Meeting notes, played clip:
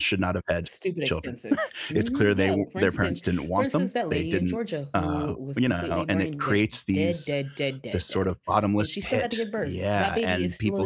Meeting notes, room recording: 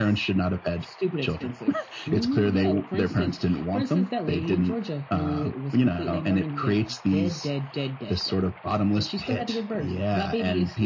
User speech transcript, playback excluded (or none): none